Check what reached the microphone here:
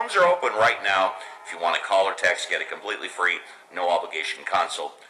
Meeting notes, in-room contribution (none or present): none